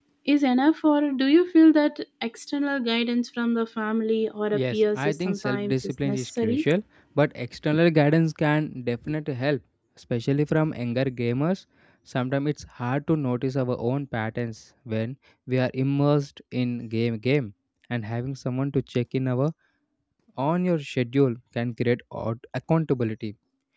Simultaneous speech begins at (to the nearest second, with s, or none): 5 s